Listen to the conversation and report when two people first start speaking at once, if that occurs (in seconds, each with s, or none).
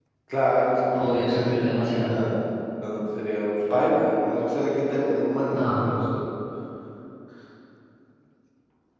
0.9 s